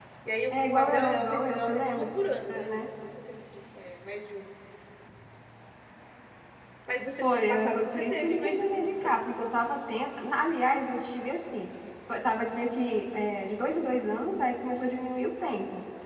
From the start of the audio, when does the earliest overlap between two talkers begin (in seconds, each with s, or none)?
0.5 s